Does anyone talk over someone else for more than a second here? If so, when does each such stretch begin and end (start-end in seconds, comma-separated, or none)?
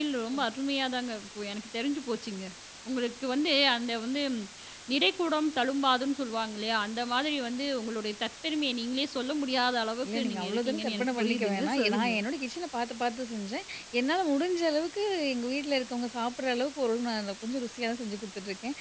10.0-12.2